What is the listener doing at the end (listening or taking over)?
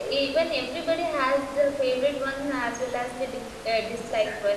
listening